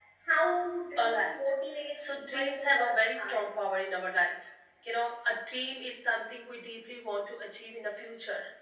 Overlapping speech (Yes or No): Yes